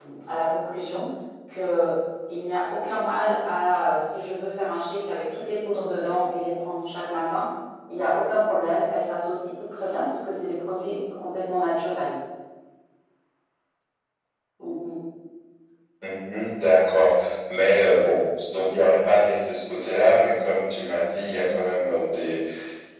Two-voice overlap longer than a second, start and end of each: none

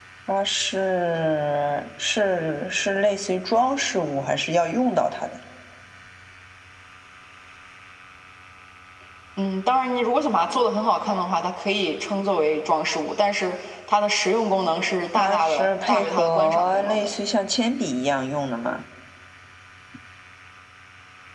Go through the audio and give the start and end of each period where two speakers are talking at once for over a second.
15.2-17.1

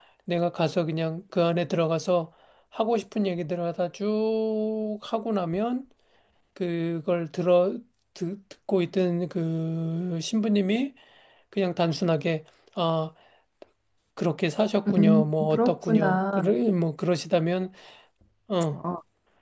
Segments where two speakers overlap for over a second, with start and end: 14.9-16.4

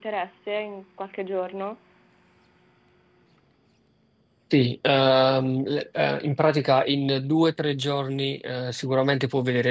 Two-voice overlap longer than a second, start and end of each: none

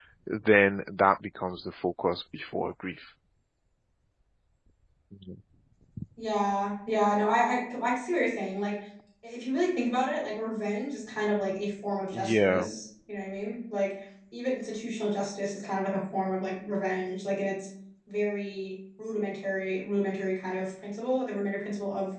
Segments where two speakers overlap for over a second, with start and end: none

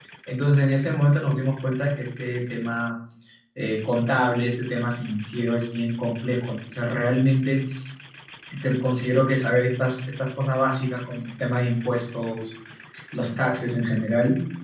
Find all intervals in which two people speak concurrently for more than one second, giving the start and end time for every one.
none

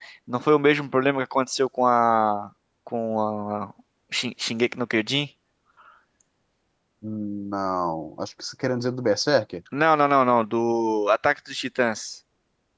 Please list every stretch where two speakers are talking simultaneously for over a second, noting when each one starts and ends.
none

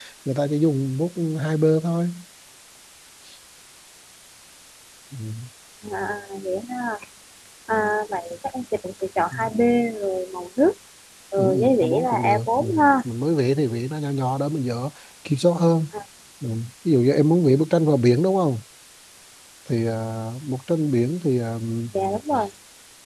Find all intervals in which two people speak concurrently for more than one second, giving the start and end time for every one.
11.4-12.6

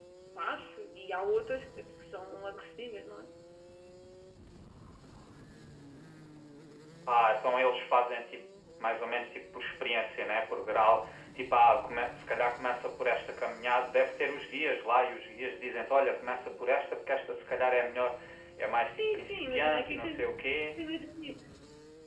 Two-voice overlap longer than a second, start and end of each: 18.8-20.1

